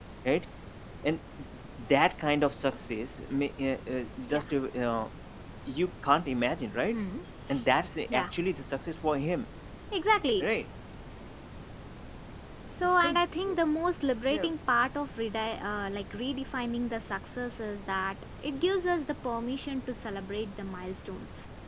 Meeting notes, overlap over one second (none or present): none